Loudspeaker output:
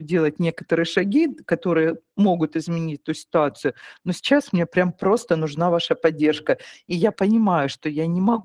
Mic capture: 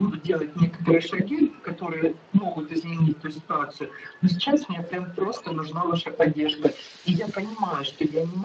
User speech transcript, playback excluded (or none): none